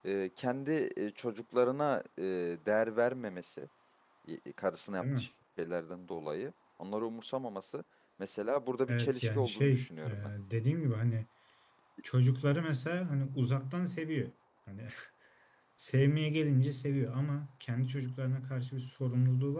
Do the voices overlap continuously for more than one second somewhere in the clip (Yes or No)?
Yes